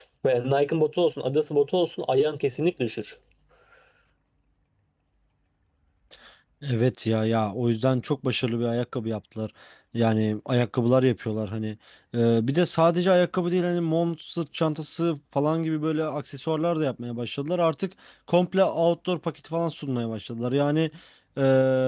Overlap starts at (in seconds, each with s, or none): none